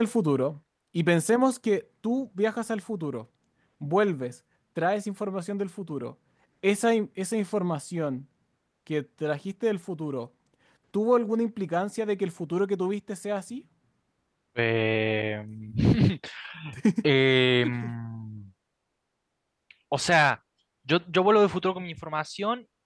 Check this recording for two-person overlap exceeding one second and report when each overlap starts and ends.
none

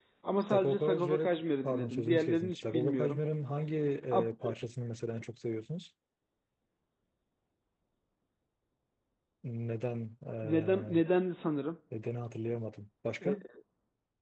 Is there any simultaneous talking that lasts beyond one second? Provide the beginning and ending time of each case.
0.5-3.2

